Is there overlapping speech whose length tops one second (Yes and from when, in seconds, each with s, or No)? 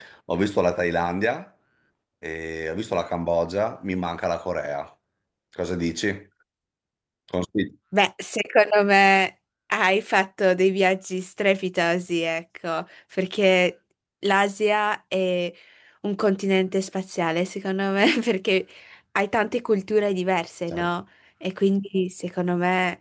No